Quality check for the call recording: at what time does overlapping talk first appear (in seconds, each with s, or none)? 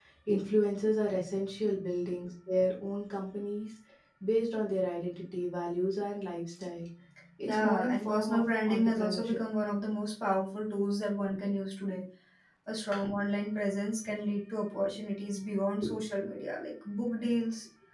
7.5 s